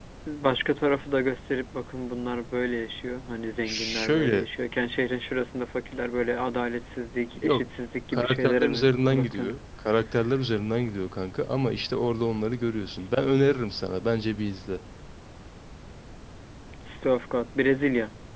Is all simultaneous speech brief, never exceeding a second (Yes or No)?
No